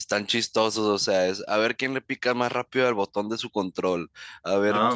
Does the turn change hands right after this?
No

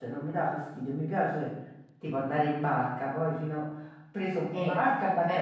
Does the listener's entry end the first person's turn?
No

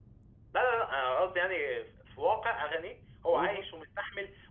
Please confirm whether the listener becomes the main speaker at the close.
No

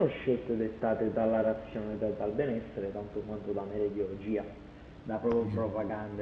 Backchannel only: Yes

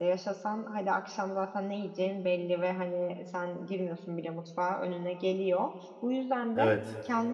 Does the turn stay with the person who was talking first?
Yes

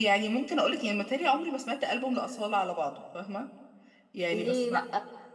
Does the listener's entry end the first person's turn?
Yes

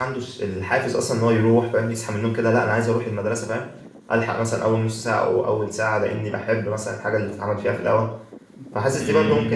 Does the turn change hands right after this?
No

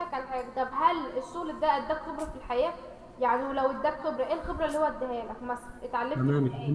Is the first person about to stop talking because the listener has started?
Yes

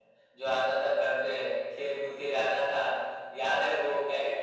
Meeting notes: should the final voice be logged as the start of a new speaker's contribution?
No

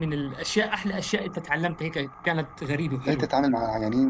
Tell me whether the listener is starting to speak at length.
Yes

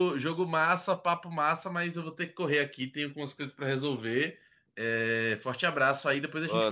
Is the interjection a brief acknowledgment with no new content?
No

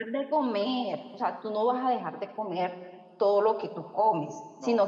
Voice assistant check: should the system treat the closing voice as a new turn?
No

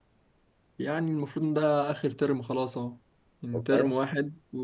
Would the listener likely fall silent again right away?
Yes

